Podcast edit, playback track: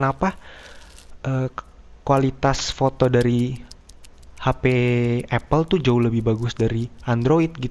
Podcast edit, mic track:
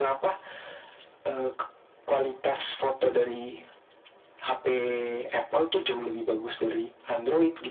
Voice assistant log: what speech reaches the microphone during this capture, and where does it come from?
echo only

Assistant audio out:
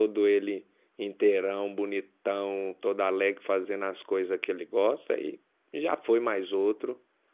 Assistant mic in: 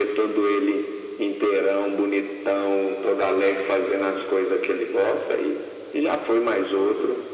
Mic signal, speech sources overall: echo only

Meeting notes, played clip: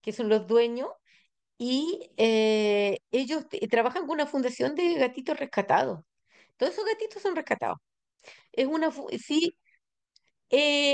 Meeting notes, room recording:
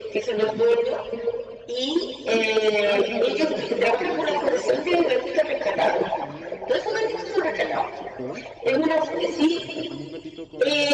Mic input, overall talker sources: both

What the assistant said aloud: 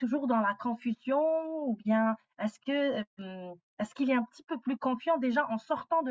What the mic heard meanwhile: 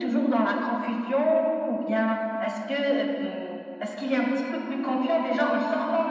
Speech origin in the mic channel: echo only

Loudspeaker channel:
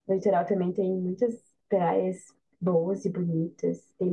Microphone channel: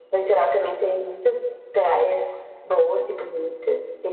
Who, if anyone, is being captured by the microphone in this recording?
echo only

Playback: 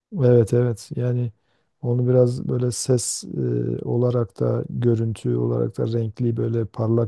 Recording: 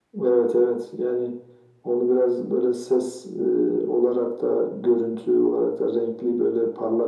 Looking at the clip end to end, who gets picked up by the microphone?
echo only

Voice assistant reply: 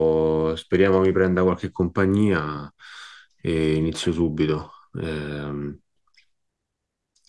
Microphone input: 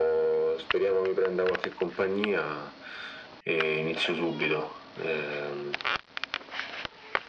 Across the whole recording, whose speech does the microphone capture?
echo only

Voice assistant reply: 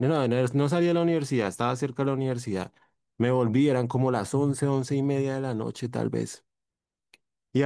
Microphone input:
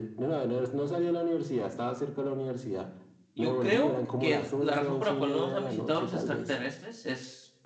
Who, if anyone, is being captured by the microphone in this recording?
both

